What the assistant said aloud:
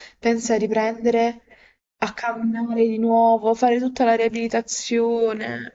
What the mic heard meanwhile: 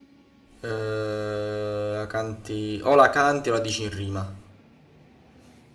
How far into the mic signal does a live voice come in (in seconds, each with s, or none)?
0.6 s